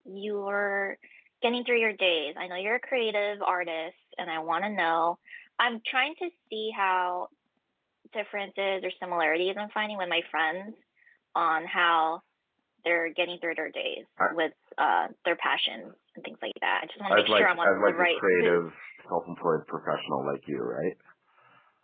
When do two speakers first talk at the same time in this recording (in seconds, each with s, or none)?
17.1 s